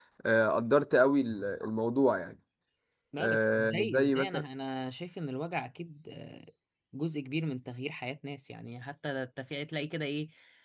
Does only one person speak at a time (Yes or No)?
No